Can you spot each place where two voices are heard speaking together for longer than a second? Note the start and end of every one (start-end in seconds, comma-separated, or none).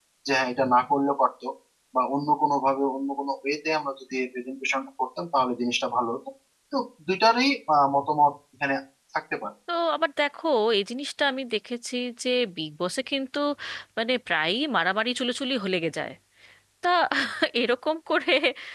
none